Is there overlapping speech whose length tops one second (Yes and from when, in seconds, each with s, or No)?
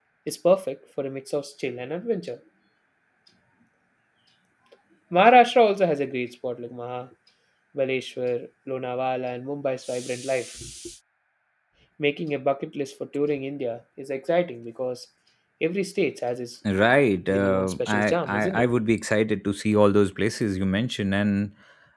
Yes, from 17.3 s